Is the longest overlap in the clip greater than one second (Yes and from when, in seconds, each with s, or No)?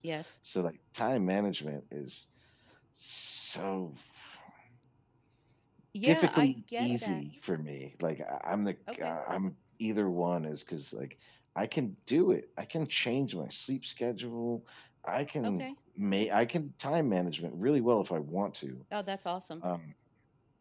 Yes, from 6.0 s